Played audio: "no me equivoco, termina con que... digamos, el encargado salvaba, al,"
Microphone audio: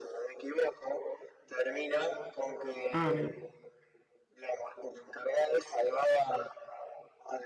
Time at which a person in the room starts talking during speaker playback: 3 s

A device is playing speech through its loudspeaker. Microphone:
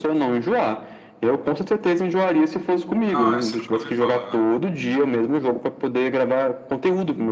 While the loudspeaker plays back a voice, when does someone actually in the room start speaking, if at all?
3 s

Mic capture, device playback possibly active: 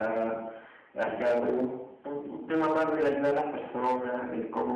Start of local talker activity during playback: none

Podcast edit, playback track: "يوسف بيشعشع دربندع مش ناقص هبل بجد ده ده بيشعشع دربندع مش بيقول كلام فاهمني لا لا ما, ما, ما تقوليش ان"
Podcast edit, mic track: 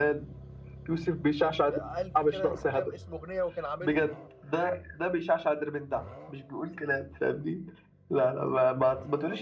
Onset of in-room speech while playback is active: 1 s

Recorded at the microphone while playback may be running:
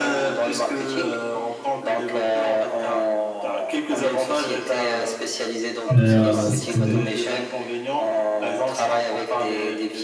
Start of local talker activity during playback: 6 s

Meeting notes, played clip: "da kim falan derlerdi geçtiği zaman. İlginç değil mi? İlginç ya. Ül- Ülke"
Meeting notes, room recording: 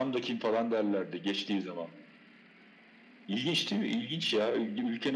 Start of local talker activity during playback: none

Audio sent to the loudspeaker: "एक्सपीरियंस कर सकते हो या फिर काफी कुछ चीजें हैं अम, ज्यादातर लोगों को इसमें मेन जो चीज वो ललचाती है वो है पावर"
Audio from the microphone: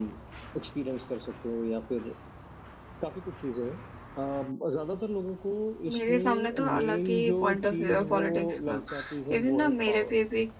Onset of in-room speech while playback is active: 6 s

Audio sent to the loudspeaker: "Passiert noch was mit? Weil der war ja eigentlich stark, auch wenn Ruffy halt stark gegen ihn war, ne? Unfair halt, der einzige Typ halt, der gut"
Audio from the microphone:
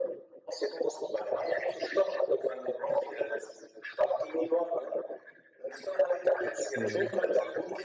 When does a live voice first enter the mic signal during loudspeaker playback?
7 s

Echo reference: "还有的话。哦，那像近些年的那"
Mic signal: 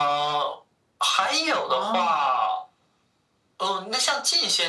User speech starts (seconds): 2 s

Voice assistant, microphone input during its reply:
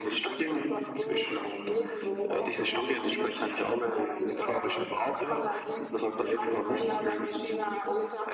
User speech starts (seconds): none

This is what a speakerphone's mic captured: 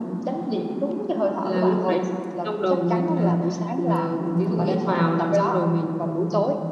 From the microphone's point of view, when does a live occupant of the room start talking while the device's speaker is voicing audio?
none

